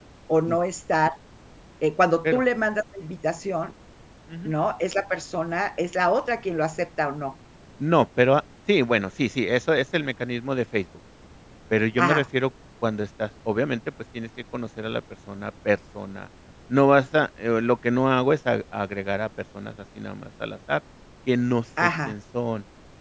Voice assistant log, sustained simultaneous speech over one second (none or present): none